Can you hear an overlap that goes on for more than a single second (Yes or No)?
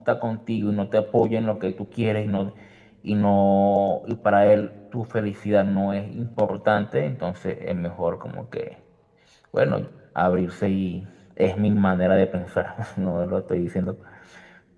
No